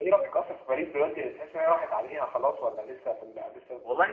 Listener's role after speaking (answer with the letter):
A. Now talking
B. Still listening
A